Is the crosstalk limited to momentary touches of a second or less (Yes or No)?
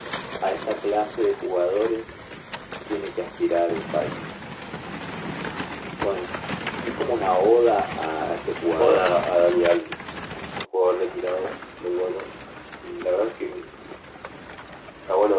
Yes